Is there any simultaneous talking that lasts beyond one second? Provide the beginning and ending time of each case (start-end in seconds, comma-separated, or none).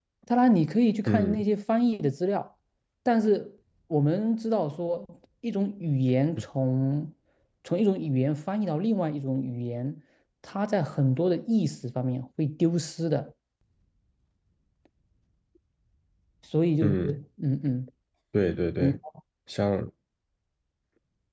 none